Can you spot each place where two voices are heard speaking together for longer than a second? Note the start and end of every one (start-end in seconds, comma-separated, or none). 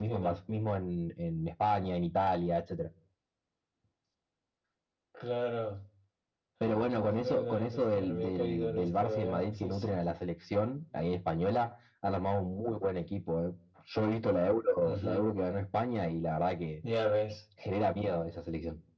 7.0-9.9